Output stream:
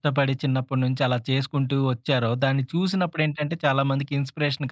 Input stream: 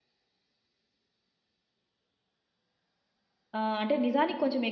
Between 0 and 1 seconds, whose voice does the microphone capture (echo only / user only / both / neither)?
neither